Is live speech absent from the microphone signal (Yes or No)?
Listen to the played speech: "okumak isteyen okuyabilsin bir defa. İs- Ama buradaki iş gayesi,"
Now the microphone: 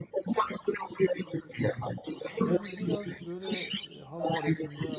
No